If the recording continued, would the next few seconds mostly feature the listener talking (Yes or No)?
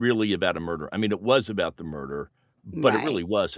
No